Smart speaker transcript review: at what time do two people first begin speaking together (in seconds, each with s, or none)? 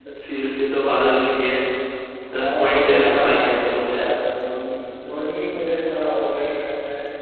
2.3 s